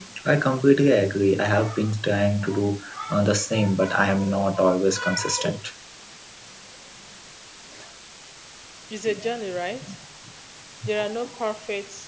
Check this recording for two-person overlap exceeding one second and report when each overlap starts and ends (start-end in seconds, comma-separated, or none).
none